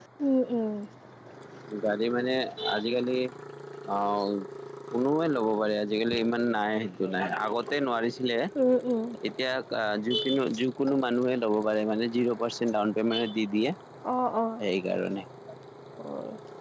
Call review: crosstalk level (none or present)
none